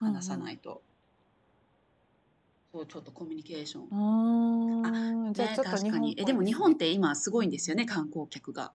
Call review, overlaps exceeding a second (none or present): present